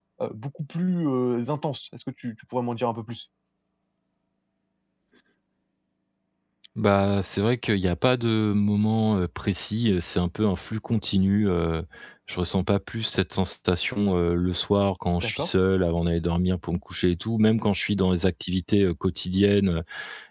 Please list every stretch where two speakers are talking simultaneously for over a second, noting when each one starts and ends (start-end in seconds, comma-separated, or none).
none